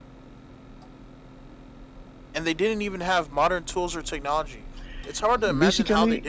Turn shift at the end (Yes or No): Yes